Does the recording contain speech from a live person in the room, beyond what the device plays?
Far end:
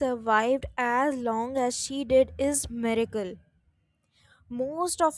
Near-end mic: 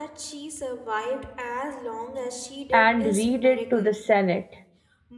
Yes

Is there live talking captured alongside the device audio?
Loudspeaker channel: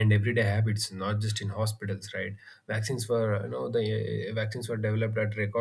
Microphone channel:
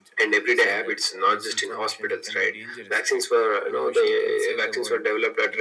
Yes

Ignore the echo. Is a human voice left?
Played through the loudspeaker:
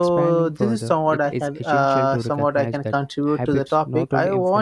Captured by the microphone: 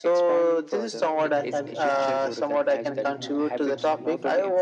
Yes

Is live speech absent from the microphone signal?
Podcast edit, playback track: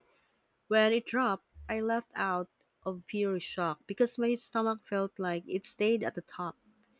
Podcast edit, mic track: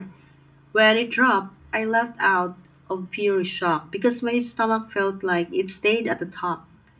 Yes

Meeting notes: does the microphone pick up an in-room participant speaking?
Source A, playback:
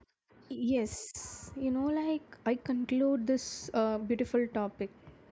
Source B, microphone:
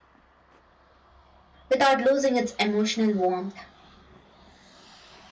Yes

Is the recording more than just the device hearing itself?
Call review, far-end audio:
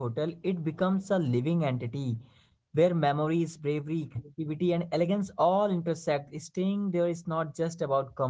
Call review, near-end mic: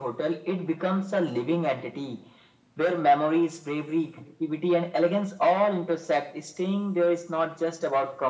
No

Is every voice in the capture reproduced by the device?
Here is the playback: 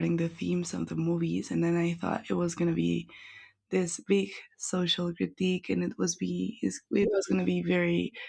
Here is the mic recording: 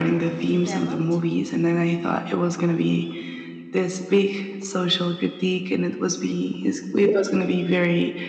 No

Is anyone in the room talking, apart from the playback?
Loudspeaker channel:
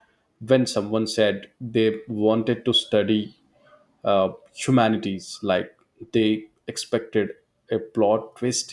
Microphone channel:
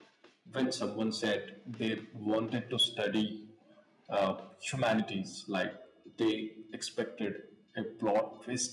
No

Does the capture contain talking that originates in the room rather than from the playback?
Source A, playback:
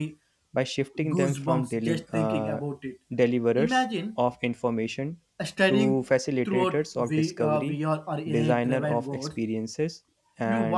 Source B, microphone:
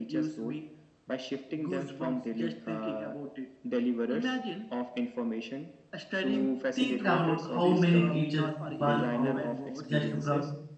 Yes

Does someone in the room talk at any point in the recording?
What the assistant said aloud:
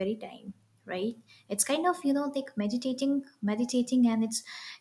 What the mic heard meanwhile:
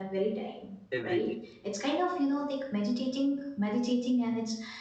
Yes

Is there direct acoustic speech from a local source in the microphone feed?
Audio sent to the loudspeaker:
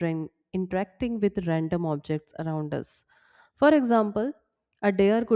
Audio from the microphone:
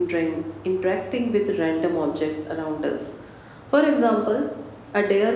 No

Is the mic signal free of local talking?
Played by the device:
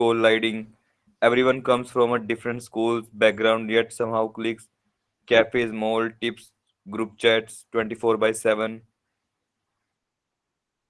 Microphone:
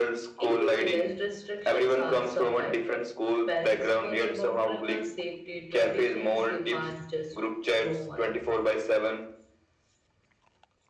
No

